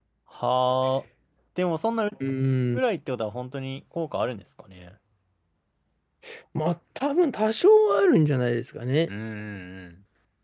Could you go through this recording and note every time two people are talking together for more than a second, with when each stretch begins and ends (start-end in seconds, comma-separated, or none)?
none